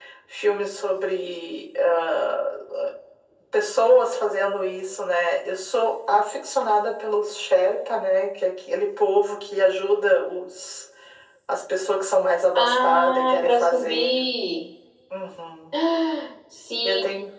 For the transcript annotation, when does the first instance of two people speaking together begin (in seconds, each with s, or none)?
12.6 s